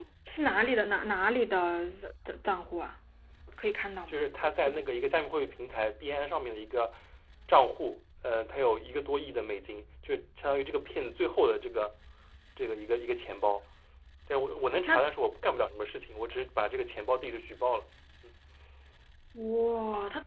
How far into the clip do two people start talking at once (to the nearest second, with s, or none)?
none